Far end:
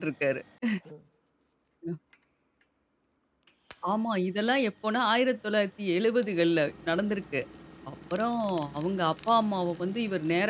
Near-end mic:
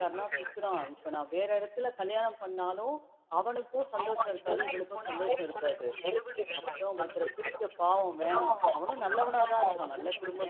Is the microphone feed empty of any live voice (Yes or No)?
No